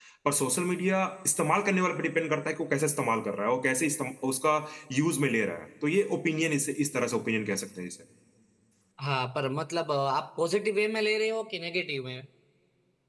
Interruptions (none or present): none